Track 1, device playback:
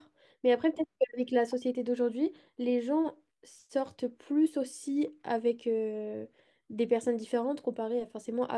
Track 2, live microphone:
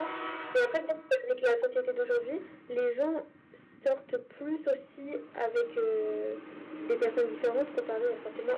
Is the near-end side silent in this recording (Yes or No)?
Yes